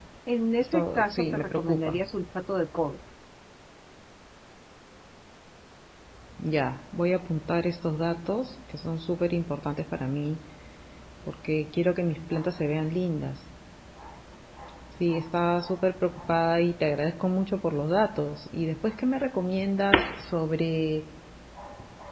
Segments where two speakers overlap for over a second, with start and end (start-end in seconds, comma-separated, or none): 0.6-2.0